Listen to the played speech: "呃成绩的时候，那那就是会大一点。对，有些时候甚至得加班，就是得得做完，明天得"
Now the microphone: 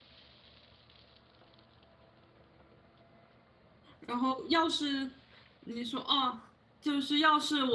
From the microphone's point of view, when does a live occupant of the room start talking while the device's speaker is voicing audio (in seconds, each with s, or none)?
4.0 s